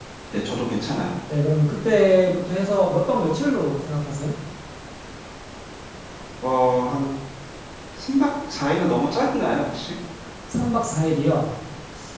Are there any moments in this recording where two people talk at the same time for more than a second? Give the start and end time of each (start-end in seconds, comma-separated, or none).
none